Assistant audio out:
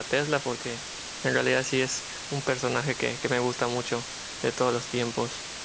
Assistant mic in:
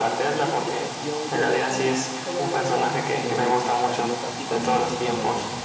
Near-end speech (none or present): present